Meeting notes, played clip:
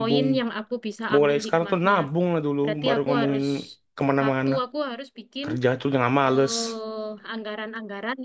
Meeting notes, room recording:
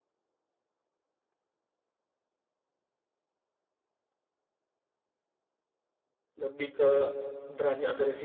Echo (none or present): none